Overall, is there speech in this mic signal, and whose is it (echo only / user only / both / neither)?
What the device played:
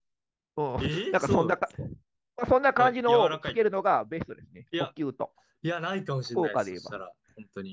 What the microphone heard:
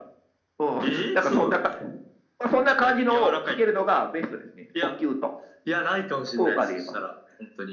echo only